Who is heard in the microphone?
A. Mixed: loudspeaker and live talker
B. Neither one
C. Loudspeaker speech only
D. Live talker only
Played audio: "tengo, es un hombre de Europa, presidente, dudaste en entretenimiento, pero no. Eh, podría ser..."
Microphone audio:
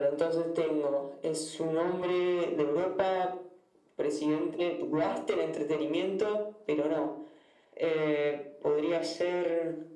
C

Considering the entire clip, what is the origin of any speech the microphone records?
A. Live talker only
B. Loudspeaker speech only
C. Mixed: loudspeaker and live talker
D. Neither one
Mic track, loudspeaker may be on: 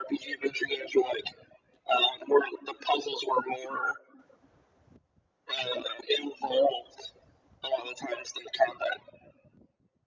B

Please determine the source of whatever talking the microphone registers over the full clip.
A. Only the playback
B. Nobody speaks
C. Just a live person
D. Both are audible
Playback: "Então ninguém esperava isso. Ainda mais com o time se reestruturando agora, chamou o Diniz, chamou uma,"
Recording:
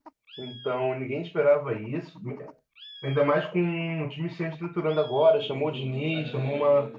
D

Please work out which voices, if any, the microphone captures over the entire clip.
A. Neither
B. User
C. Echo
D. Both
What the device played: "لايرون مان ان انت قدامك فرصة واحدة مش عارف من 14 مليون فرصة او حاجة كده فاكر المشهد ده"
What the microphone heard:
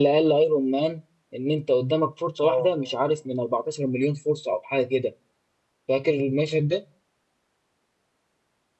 D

